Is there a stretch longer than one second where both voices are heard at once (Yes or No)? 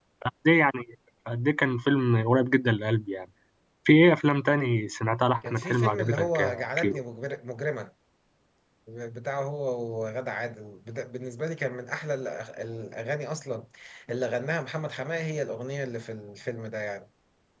Yes